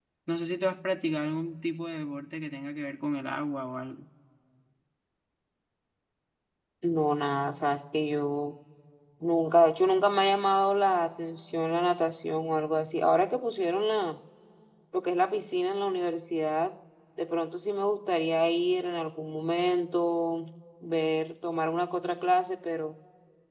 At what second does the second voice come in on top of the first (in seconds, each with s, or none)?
none